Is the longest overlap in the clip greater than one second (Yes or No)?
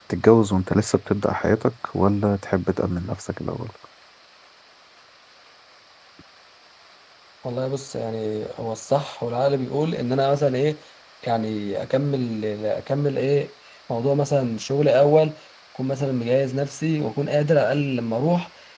No